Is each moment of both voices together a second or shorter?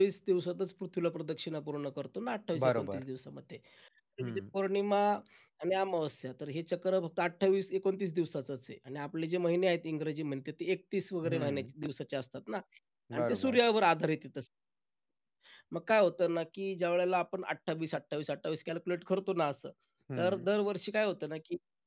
Yes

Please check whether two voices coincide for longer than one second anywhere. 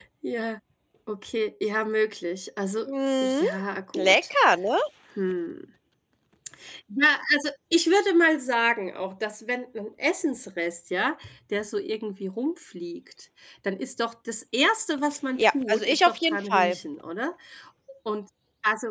Yes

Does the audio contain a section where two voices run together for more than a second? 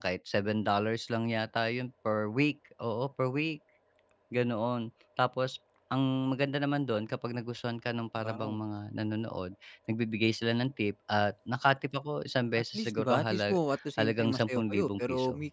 Yes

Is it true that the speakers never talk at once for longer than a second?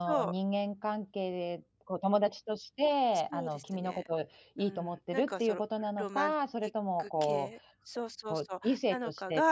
No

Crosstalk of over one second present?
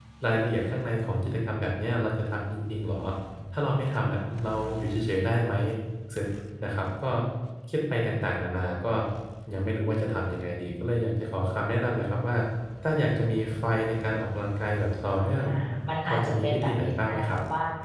Yes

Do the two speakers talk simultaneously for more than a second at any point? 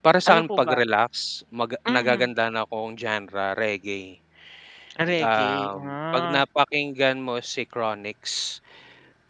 Yes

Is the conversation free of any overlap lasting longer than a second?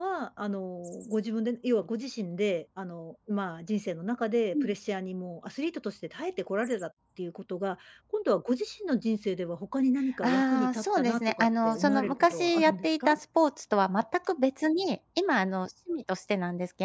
No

